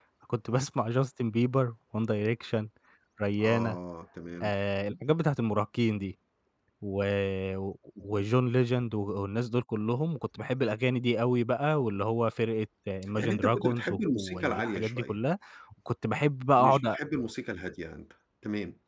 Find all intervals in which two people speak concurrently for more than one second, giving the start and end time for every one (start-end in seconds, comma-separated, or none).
13.2-15.2